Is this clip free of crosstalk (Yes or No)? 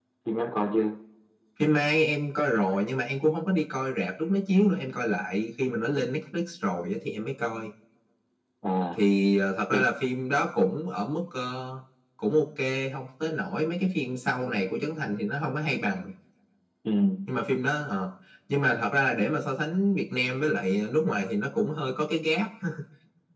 Yes